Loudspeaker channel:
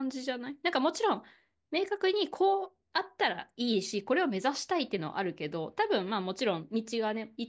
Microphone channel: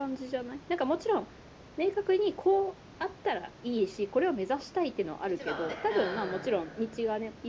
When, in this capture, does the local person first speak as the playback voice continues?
5 s

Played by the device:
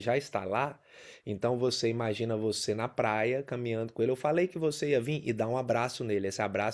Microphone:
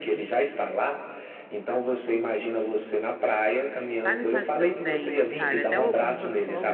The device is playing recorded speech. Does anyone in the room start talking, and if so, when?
4 s

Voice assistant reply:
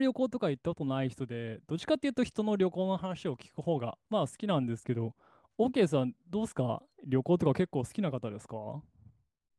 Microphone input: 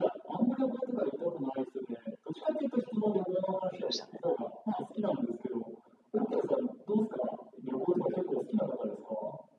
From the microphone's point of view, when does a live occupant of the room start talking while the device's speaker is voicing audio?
4 s

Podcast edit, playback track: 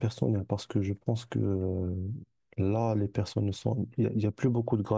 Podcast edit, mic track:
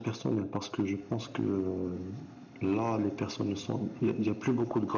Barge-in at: none

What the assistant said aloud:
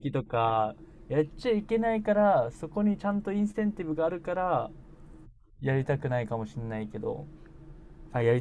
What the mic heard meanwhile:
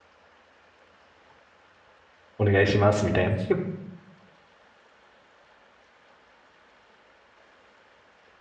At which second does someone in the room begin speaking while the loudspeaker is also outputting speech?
2 s

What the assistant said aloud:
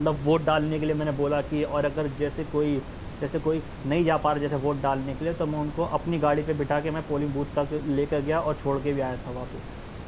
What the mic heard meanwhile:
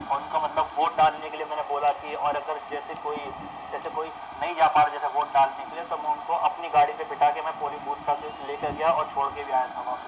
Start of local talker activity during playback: none

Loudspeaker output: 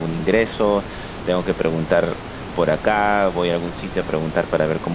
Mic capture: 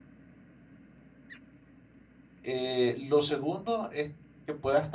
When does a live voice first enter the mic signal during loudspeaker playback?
2 s

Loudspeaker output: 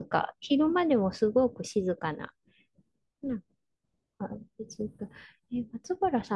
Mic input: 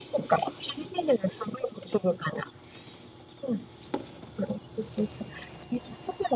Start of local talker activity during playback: none

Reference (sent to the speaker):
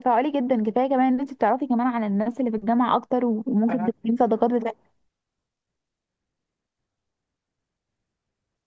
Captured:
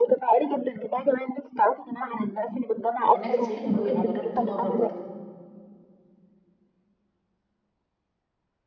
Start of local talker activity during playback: 3 s

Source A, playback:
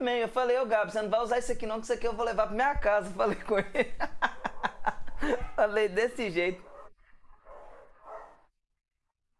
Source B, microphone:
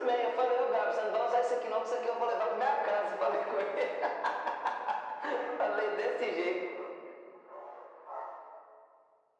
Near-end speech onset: none

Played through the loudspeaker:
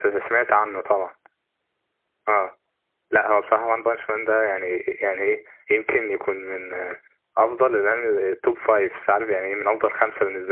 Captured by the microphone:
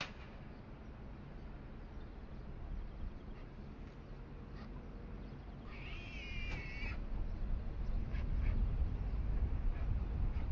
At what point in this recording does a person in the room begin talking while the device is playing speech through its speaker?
none

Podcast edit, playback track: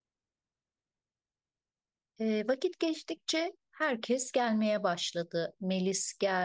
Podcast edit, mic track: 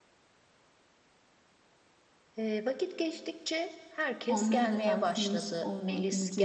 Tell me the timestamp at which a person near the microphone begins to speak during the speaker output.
4 s

